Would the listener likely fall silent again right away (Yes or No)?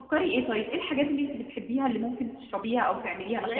No